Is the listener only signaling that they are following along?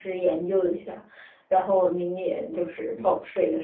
No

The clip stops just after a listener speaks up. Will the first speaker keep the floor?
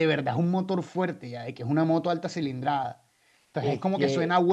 Yes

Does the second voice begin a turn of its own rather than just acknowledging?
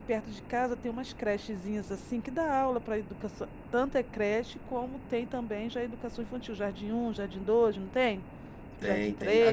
Yes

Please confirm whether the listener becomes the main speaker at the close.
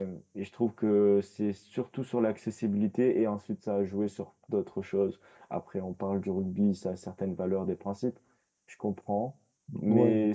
No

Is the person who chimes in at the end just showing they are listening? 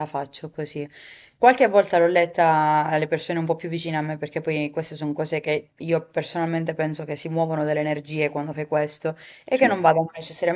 Yes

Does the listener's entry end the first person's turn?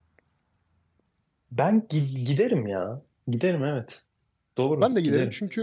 Yes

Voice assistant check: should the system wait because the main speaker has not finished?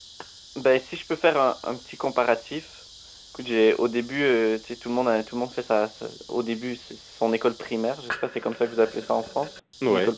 No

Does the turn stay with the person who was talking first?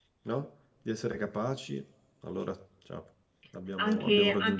No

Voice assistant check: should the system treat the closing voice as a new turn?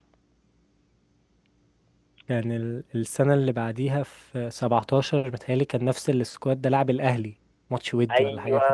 Yes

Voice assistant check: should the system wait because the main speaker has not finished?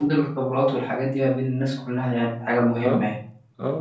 No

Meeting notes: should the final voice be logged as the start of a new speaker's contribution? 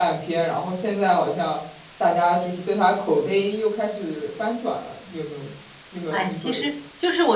Yes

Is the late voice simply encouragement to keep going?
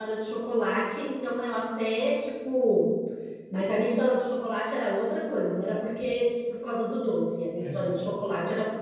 Yes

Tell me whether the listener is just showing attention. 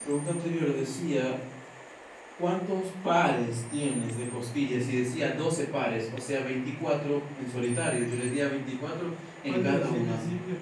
No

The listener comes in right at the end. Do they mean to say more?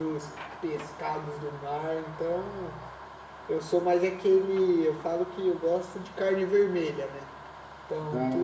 No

